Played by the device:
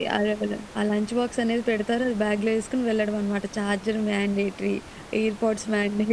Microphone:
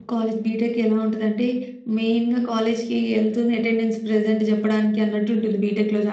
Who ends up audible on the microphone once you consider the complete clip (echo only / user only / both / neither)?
user only